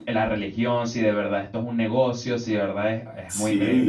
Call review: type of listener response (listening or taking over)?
taking over